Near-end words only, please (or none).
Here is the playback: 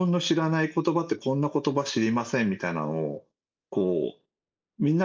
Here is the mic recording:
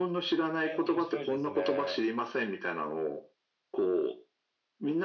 え、面白いですね。